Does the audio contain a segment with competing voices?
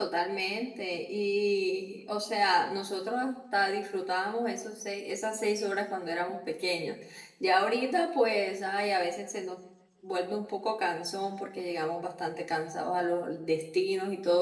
No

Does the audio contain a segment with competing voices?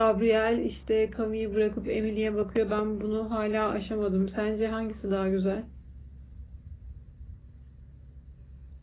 No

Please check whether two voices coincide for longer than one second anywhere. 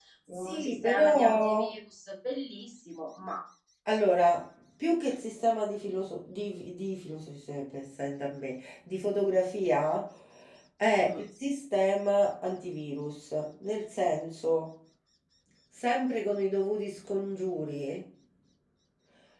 Yes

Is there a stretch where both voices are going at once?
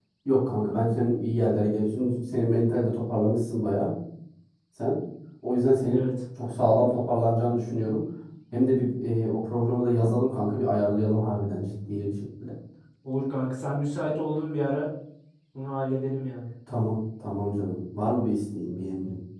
No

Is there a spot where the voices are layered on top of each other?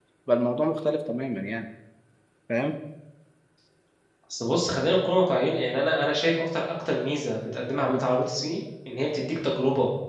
No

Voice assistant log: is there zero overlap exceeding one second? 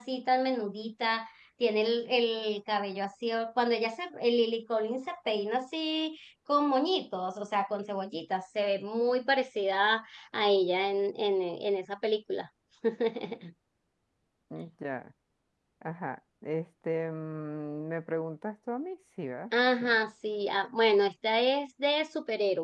Yes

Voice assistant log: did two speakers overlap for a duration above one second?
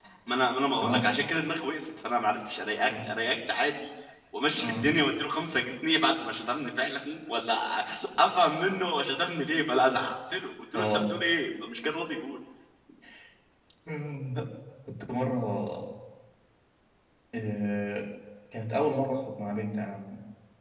No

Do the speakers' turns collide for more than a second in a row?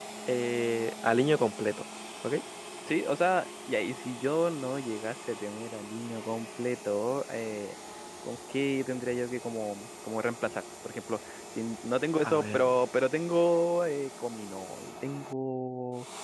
No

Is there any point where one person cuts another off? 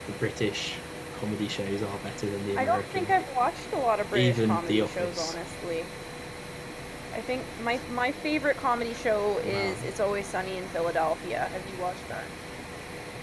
Yes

